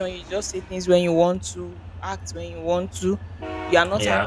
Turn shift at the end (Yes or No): No